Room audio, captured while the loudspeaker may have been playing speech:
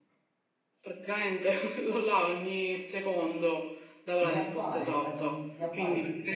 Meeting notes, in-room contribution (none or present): present